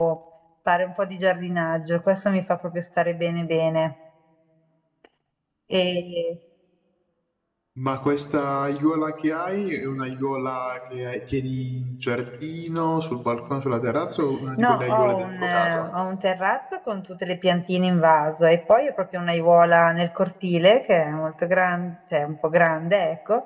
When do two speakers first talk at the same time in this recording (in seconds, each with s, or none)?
14.6 s